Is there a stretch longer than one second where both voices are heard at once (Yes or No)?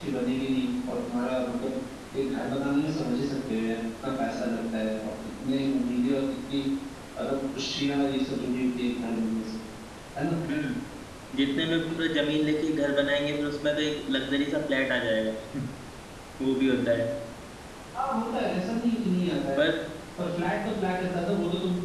No